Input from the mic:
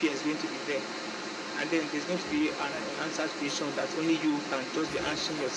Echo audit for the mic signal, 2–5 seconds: both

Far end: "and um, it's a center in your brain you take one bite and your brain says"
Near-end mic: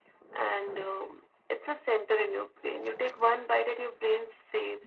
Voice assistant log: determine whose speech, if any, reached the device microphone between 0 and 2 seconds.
echo only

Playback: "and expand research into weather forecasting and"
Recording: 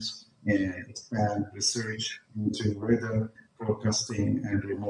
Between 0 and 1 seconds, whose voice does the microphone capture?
echo only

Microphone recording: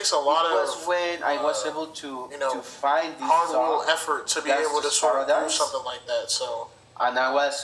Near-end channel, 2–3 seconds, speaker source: echo only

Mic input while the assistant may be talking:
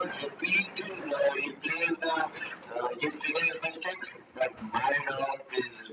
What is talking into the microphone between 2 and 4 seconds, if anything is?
echo only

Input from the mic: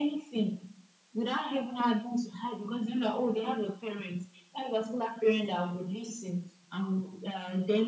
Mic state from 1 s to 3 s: echo only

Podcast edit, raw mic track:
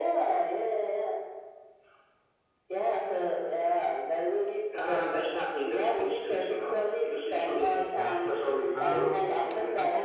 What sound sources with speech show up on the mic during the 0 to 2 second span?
echo only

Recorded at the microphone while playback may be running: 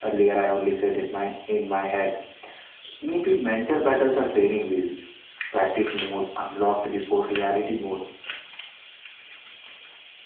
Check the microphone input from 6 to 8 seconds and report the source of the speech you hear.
echo only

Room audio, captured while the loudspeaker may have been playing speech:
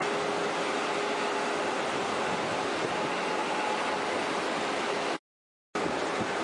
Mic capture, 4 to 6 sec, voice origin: neither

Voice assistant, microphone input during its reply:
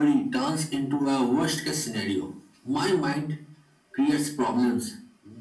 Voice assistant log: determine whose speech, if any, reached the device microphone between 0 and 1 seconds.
echo only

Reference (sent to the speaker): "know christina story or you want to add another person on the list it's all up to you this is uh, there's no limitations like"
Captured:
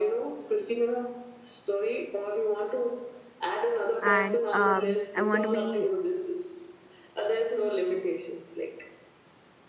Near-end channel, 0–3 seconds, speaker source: echo only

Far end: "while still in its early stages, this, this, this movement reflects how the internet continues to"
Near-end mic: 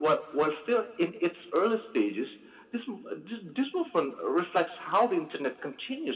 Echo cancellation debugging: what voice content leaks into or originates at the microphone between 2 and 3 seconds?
echo only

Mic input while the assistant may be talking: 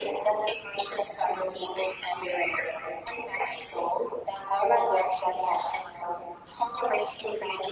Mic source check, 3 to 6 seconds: echo only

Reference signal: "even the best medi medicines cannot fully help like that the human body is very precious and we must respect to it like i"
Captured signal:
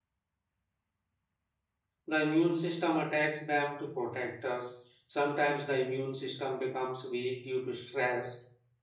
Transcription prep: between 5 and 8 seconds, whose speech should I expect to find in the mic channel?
user only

